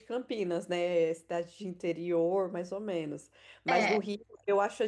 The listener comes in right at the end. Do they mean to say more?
No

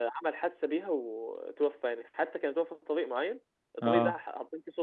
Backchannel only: Yes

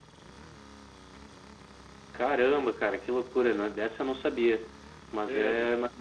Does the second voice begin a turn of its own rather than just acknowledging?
No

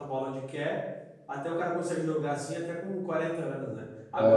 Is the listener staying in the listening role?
Yes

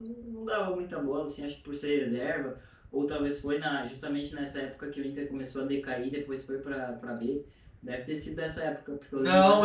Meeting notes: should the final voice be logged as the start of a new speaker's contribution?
Yes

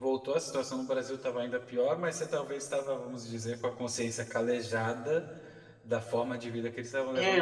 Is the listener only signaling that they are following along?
No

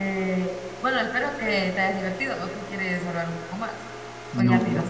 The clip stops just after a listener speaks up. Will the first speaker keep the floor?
No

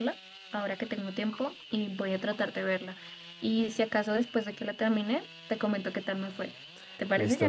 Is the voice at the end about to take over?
Yes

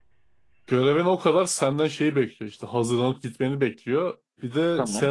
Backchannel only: Yes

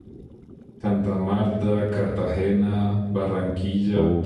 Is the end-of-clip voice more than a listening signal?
No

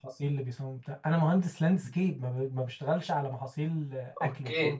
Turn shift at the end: Yes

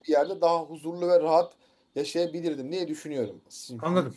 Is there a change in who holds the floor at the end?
No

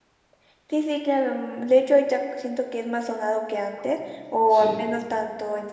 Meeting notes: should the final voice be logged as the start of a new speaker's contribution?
No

